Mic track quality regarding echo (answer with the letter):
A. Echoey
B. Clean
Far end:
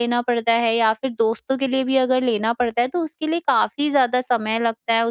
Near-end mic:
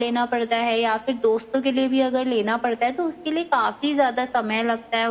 A